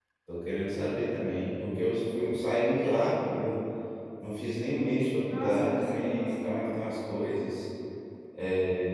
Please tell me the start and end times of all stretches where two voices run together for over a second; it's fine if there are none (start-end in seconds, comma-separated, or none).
5.3-6.8